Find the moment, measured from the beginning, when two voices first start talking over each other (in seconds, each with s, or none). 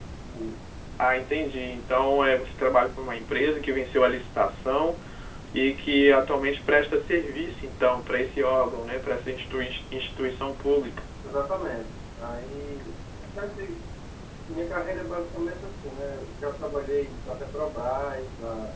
none